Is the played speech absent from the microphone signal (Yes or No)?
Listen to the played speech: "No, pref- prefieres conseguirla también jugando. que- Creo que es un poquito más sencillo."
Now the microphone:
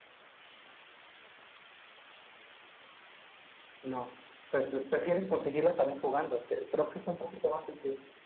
No